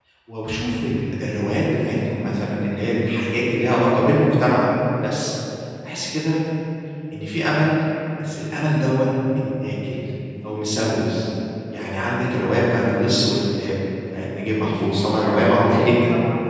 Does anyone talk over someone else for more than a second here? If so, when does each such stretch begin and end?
14.6-16.0

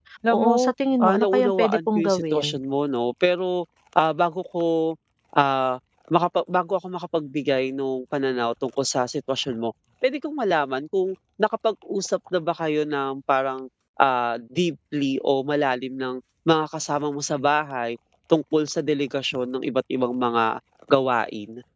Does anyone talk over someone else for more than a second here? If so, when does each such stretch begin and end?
1.0-2.5

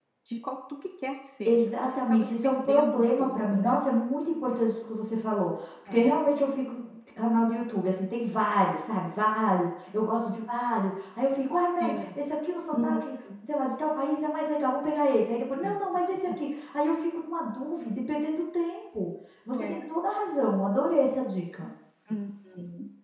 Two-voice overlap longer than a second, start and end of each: 1.4-3.8

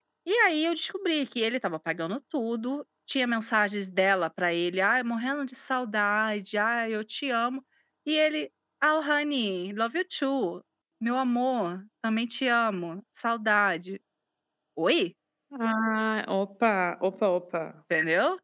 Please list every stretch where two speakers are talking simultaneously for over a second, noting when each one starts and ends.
none

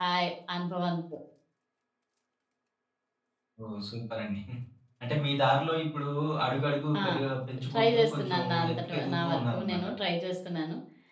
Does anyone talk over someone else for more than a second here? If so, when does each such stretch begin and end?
7.7-9.8

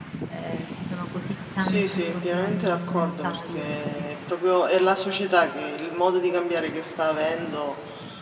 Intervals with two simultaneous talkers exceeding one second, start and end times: 1.6-4.0

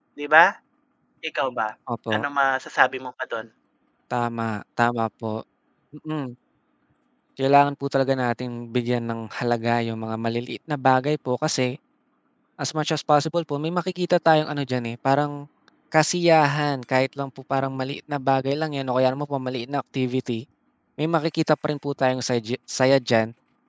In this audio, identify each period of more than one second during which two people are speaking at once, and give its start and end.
none

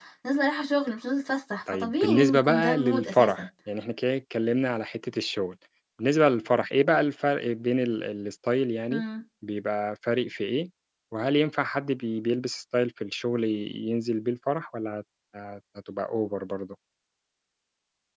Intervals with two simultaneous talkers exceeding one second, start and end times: 1.7-3.5

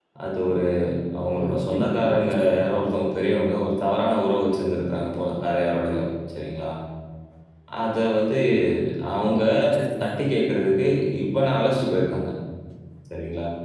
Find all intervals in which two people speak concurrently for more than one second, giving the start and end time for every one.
1.4-2.6

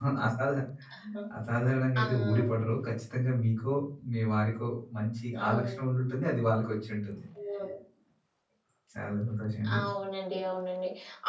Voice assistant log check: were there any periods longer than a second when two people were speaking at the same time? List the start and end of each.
none

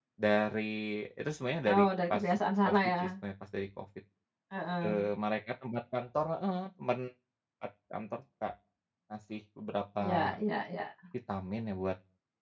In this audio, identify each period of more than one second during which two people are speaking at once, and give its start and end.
none

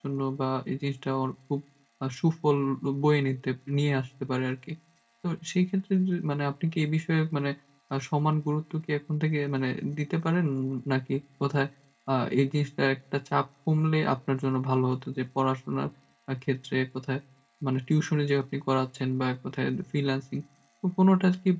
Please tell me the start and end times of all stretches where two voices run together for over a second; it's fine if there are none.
none

